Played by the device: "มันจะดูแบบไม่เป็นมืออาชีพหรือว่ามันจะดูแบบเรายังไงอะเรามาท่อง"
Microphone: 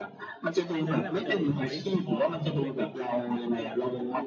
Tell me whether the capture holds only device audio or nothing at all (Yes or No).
No